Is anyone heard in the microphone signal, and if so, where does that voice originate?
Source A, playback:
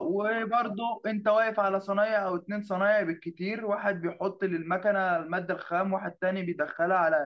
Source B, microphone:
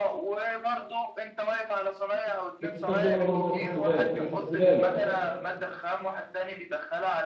both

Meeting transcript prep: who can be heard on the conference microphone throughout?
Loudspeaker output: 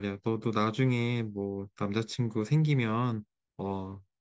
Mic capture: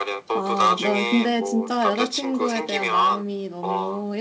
both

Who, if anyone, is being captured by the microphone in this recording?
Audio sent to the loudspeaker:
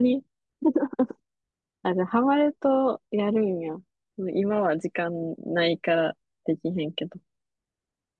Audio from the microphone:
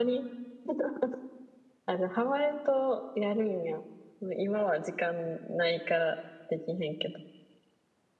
echo only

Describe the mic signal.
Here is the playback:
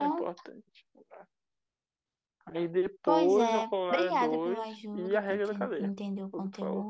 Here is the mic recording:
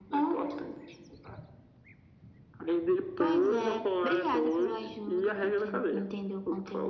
echo only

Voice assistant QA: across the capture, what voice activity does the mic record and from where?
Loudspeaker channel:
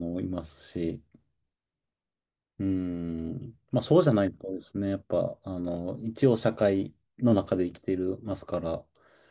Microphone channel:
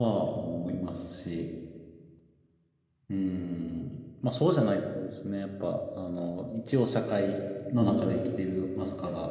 echo only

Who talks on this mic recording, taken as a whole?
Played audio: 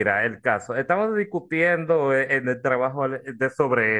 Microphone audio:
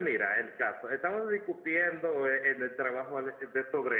echo only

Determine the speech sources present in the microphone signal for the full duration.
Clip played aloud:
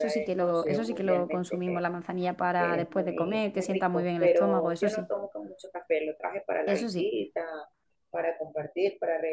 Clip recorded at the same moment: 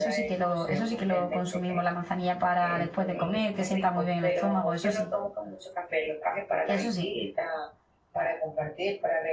echo only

